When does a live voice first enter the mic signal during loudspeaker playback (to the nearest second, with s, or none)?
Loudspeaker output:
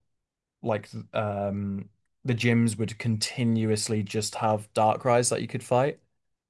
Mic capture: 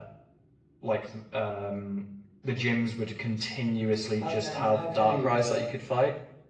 4 s